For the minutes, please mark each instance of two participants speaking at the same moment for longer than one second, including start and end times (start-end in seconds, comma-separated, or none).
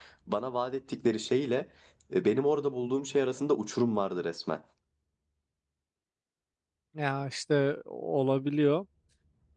none